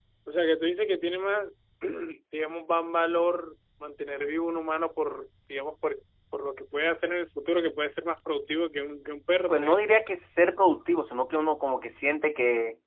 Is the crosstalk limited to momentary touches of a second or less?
Yes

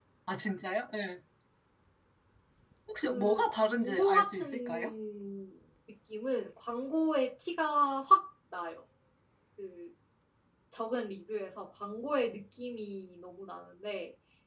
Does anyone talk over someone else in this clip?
Yes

